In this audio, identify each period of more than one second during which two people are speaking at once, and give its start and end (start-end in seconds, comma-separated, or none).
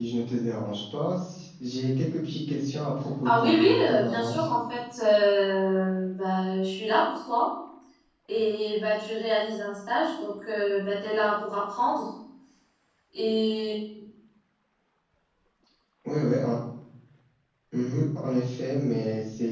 3.2-4.5